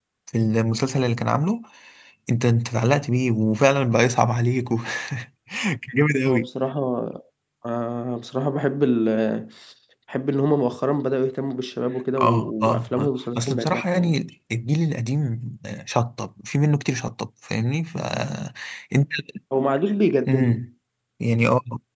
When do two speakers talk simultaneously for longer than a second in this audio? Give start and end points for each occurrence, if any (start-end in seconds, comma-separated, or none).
12.2-14.2